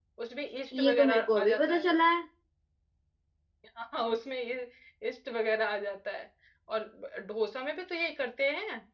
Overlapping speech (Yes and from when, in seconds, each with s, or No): Yes, from 0.8 s